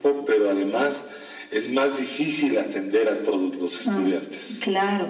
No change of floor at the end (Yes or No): No